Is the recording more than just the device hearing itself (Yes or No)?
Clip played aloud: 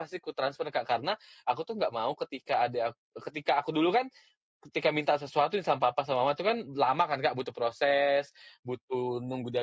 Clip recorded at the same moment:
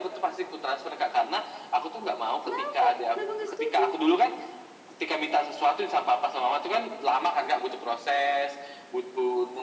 Yes